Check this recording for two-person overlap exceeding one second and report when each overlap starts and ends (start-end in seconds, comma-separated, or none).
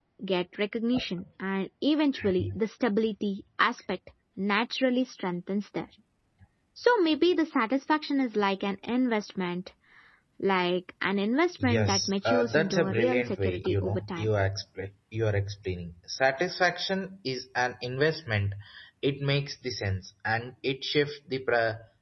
11.6-14.3